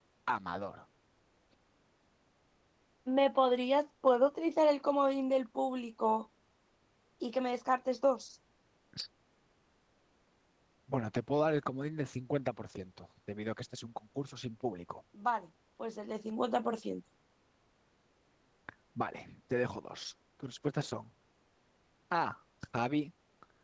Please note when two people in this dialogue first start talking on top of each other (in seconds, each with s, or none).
none